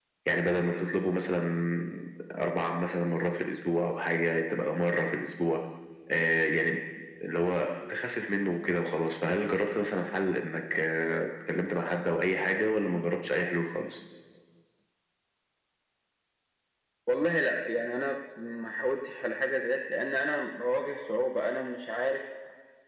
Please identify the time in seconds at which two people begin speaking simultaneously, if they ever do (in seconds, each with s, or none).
none